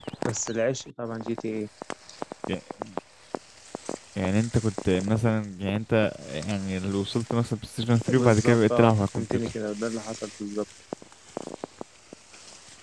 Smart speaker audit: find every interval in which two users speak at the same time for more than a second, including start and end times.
8.1-9.4

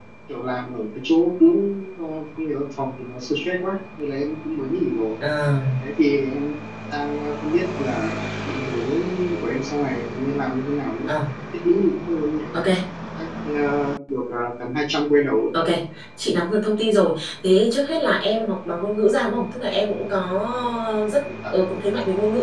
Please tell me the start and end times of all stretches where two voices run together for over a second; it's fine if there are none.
none

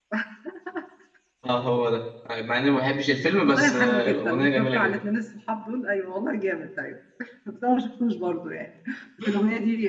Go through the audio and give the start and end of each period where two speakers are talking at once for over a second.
3.5-4.9

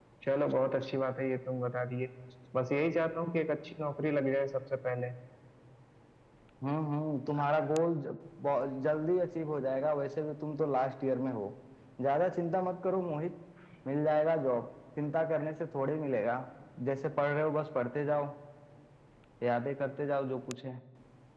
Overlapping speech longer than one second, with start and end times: none

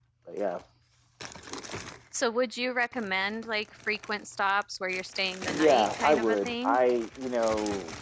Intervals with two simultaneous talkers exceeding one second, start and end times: 5.5-6.8

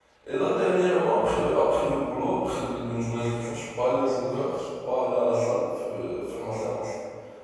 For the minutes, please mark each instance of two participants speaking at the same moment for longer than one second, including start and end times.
none

